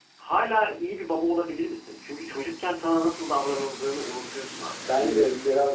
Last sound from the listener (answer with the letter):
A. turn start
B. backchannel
A